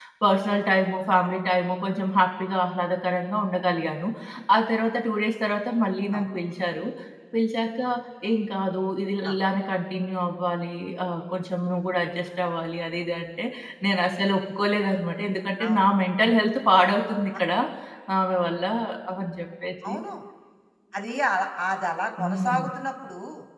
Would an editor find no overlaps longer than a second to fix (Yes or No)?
Yes